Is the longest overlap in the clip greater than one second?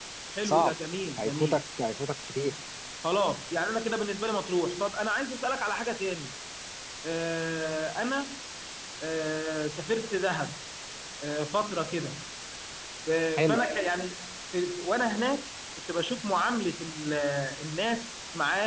No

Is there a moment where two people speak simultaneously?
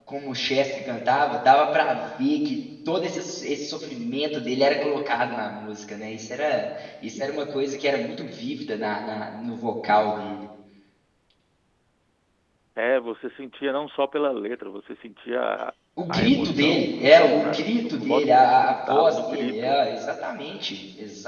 Yes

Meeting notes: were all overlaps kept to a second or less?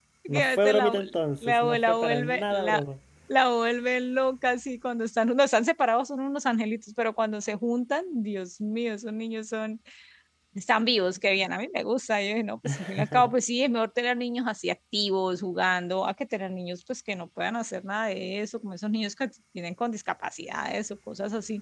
No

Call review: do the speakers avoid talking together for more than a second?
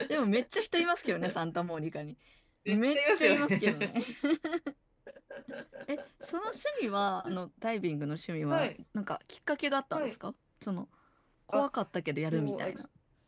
No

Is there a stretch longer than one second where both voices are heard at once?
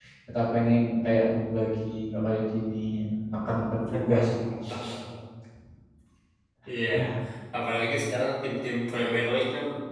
No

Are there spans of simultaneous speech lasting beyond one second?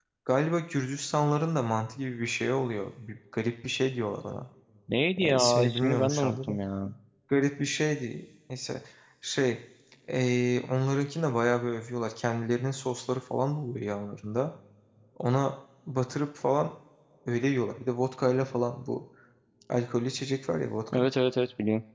Yes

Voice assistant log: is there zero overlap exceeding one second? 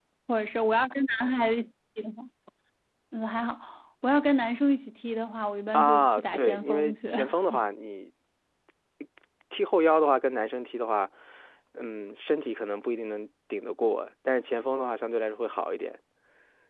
No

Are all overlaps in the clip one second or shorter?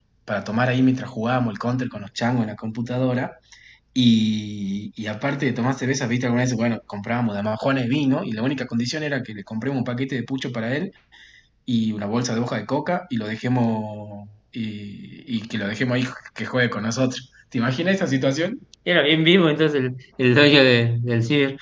Yes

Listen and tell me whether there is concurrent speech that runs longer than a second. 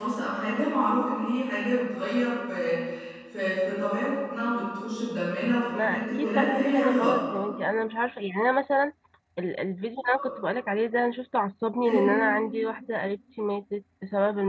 Yes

